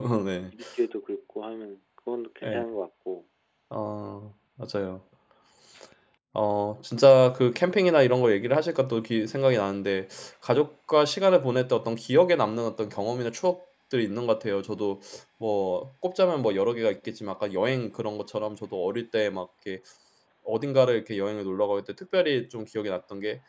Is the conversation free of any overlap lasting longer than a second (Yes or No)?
Yes